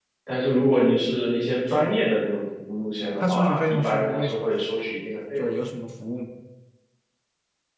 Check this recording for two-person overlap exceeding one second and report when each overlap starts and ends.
3.2-4.7

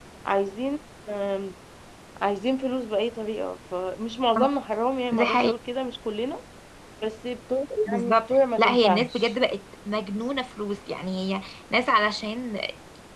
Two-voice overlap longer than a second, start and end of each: 7.9-9.3

